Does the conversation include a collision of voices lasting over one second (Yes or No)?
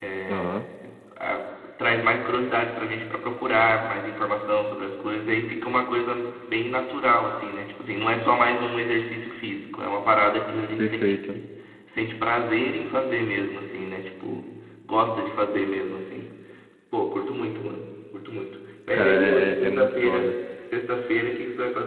Yes